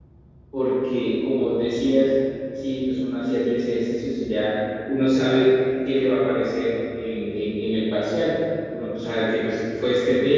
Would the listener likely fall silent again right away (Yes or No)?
Yes